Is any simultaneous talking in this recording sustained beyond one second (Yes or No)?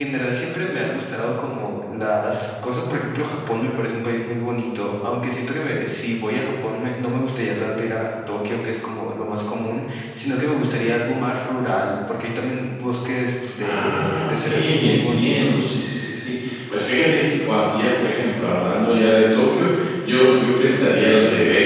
Yes